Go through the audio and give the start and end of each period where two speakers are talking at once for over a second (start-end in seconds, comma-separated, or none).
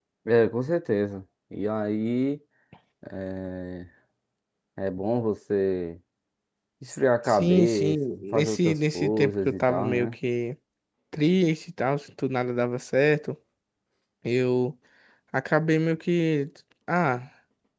7.3-10.1